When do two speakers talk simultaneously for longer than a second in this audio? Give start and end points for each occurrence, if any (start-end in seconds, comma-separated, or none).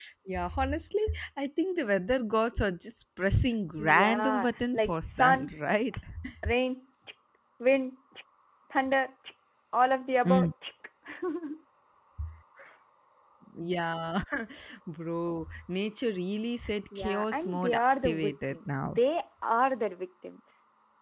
3.8-5.5, 17.0-19.0